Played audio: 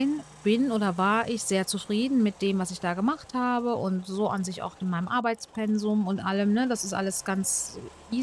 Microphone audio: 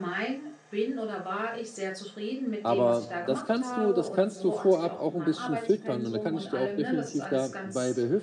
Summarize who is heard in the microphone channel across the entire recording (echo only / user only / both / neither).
both